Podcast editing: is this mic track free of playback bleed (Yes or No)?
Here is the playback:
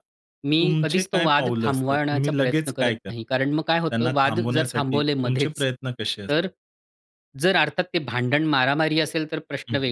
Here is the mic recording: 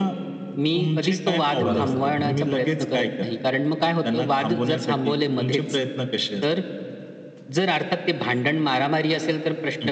No